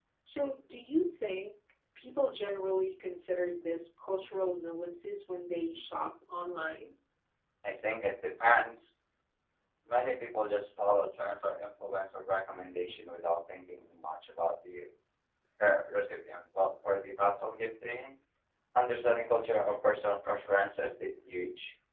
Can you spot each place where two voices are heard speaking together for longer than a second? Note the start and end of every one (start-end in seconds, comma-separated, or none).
none